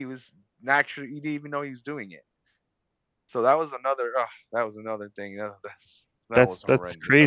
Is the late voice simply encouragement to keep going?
No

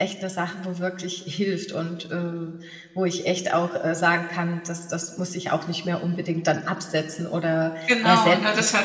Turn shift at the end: Yes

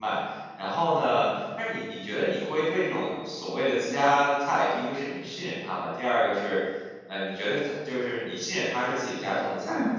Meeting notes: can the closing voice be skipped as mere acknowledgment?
Yes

